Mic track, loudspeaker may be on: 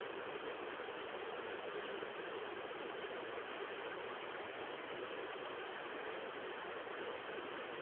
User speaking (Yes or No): No